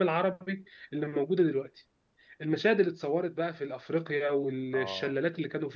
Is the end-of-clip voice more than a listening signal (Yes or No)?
No